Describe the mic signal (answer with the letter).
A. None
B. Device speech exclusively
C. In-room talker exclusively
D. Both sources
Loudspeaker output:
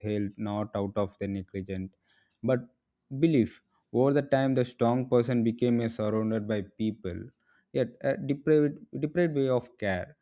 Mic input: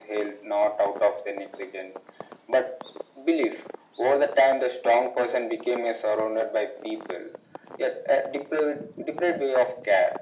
B